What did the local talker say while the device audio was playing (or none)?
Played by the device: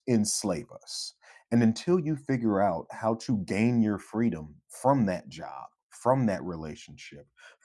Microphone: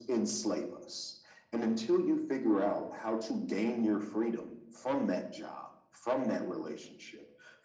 none